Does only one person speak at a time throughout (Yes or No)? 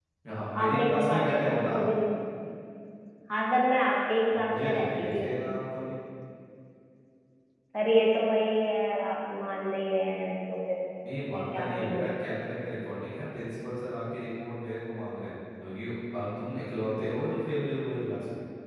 No